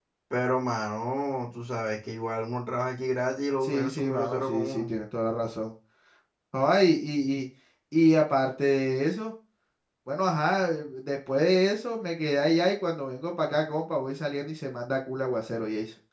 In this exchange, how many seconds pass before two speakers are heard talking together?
3.6 s

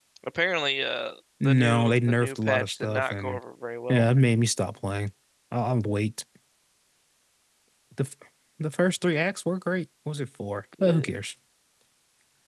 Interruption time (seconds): 1.4 s

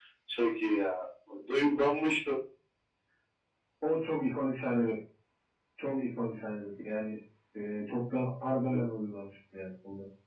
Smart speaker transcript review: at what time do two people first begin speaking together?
none

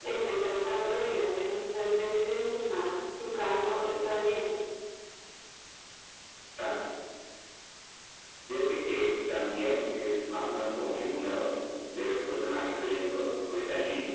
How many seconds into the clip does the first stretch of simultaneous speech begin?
none

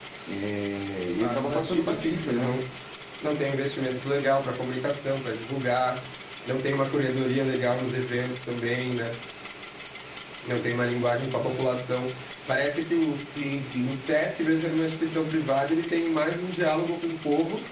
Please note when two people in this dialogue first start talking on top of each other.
1.2 s

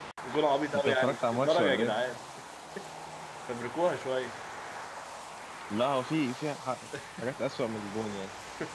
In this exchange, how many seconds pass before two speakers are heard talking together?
0.8 s

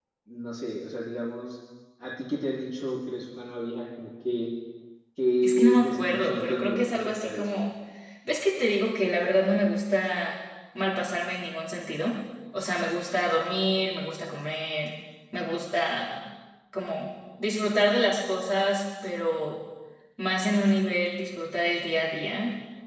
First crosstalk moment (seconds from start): 5.4 s

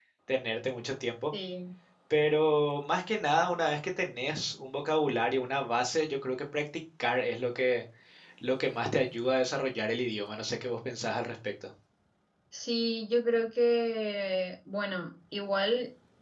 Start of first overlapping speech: none

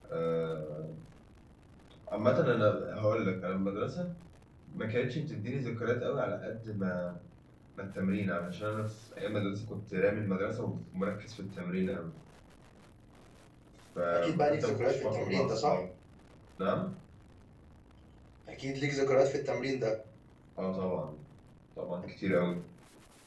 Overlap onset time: 14.1 s

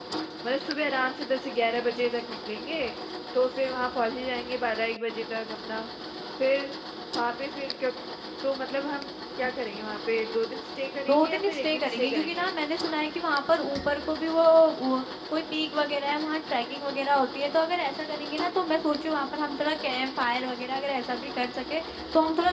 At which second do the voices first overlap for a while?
11.1 s

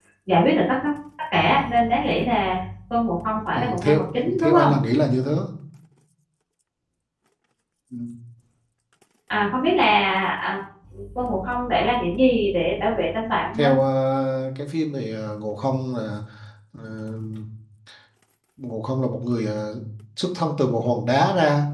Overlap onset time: 3.5 s

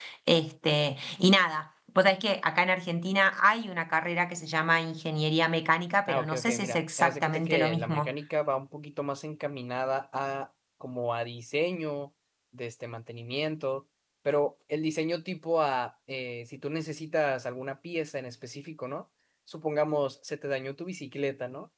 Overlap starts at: 6.1 s

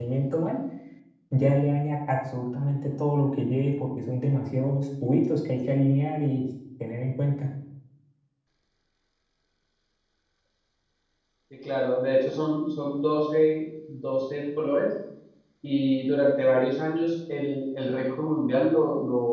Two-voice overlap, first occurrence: none

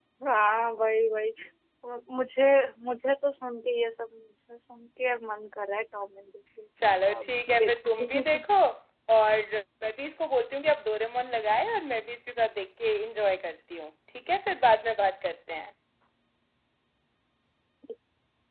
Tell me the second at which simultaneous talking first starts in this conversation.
6.8 s

